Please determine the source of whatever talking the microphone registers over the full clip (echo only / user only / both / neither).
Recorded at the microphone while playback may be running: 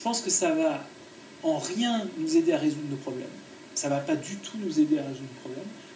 echo only